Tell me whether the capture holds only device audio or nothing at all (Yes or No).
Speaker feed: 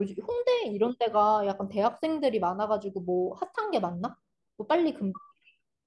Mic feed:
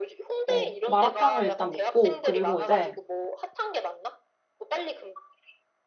No